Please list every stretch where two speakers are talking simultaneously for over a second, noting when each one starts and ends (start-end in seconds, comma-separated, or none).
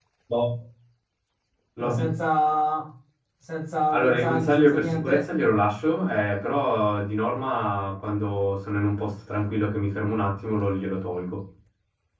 3.9-5.2